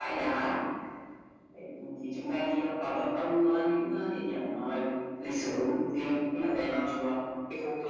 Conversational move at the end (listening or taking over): taking over